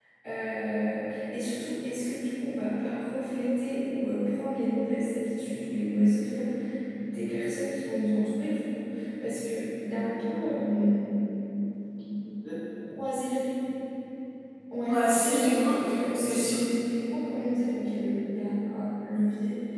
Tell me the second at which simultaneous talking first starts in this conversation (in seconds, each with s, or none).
14.9 s